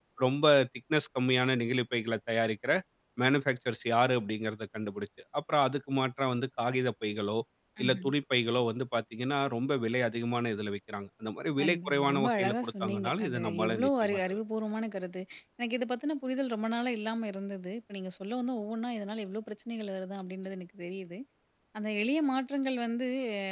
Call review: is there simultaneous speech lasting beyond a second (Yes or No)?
Yes